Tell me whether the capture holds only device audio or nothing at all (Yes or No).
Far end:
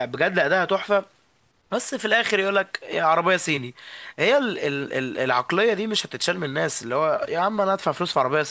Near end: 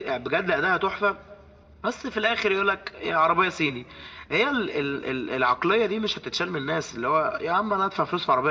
Yes